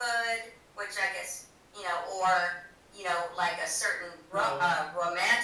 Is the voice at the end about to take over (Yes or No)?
No